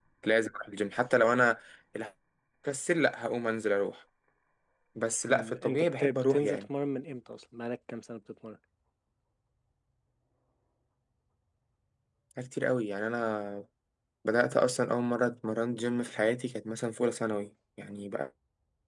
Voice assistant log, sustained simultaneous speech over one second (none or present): present